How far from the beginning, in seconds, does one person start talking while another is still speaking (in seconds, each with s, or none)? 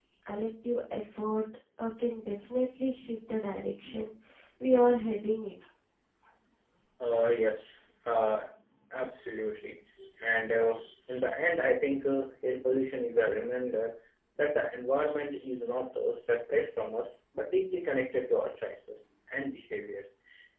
none